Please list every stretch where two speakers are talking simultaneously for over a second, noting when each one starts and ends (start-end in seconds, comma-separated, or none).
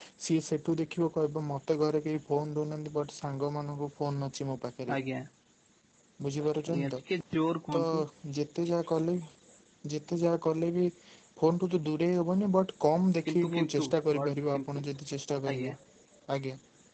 13.3-14.8